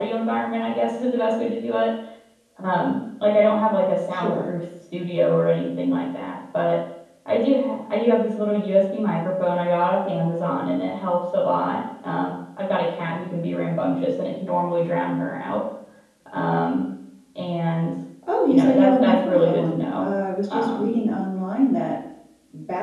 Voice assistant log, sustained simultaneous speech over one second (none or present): present